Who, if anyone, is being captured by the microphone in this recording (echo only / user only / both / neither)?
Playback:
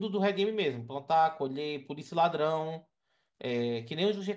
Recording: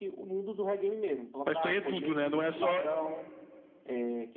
both